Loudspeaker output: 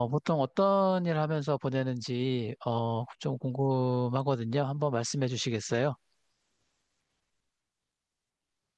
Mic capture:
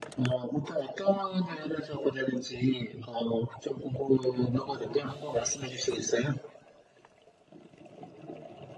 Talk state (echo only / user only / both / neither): echo only